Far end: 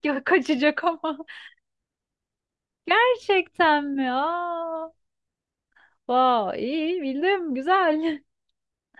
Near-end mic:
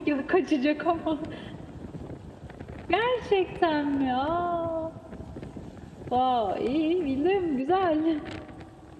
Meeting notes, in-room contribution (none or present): none